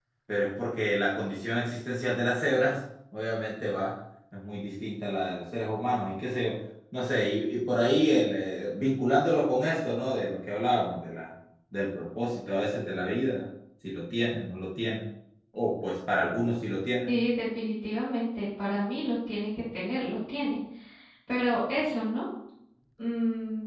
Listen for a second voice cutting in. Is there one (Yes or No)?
No